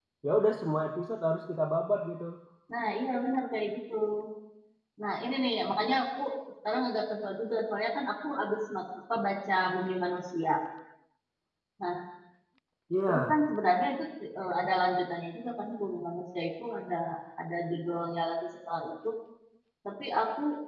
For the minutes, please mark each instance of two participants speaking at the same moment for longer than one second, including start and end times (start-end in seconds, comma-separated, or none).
none